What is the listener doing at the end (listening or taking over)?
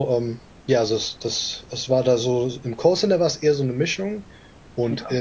listening